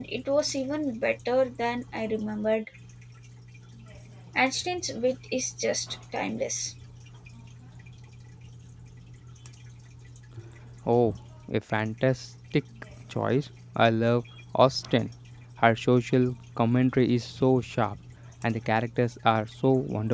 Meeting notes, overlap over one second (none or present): none